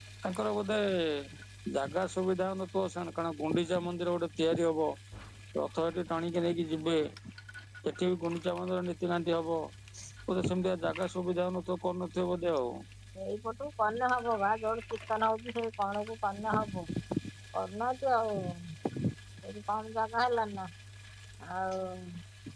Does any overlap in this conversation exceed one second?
No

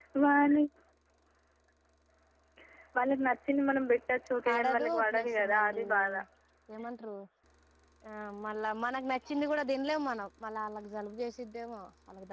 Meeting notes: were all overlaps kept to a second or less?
No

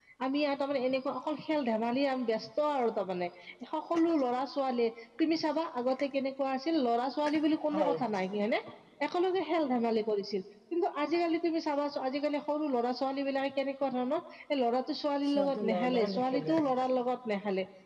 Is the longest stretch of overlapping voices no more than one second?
No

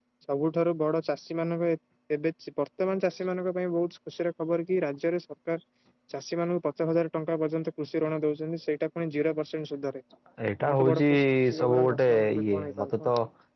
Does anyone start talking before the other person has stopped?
Yes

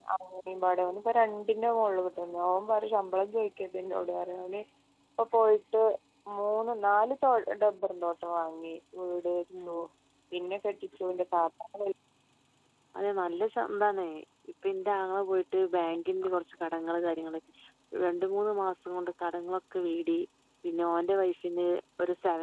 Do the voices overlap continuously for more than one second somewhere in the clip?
No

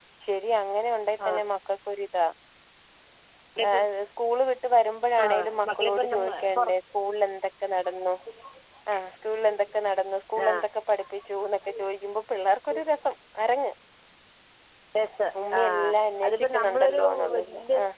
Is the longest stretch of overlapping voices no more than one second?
No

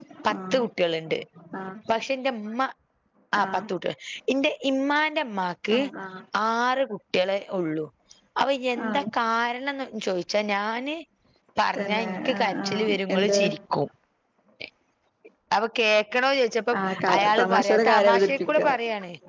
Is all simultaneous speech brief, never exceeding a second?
No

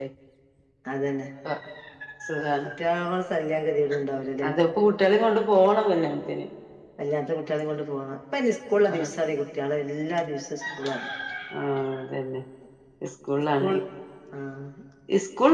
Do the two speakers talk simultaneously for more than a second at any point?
No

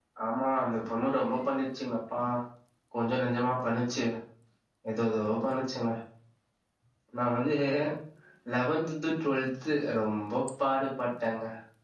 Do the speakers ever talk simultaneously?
No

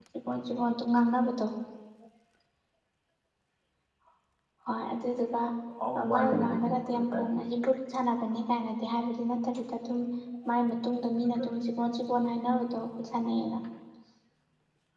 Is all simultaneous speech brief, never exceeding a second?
No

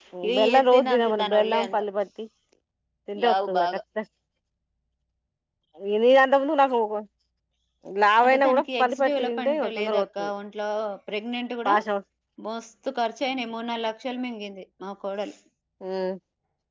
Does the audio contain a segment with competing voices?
Yes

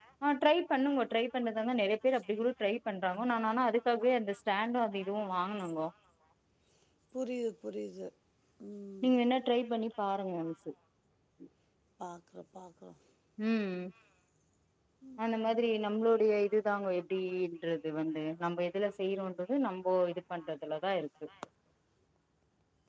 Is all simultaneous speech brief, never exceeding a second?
Yes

